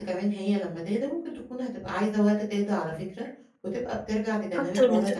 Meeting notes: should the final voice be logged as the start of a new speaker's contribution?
Yes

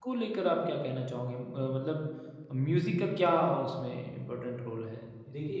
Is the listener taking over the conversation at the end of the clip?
Yes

